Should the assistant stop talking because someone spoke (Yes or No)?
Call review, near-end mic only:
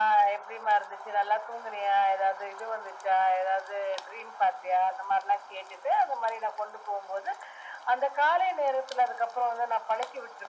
No